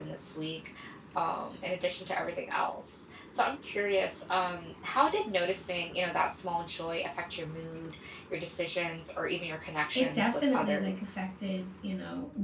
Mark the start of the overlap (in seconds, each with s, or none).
9.9 s